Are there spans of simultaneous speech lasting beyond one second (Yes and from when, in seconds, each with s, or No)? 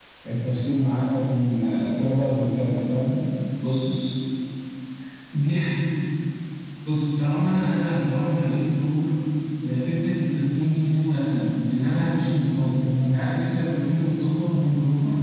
No